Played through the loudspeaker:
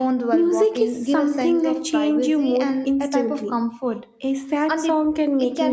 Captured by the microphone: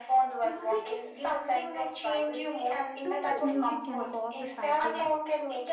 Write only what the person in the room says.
too much music can cause the fatigue.

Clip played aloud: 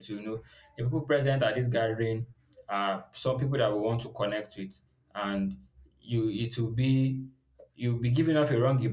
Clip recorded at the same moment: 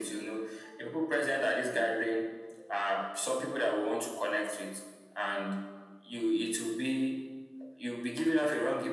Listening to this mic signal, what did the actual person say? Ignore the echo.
none

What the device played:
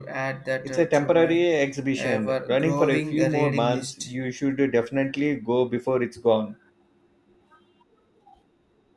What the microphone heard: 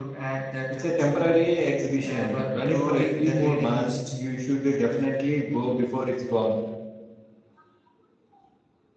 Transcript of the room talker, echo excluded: none

